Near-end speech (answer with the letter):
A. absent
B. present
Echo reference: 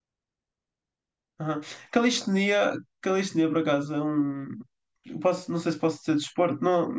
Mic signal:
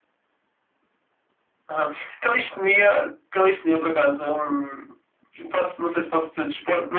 A